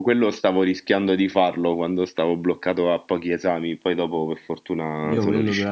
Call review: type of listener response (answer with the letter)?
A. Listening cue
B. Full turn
B